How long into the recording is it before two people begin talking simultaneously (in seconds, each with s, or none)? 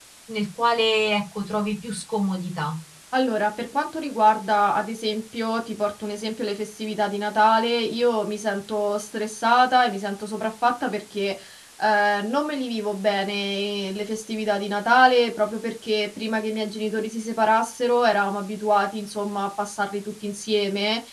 none